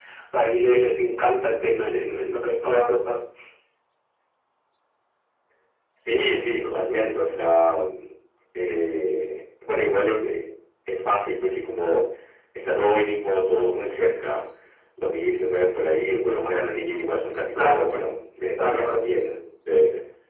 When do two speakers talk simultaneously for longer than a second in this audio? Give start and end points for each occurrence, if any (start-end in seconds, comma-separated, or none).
none